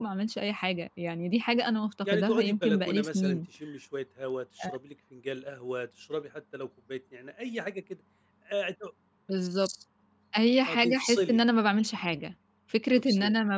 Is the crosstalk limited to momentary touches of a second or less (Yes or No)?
No